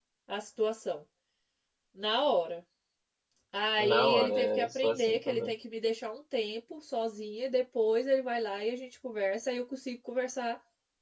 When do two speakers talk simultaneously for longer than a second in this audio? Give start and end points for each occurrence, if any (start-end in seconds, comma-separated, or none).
3.9-5.5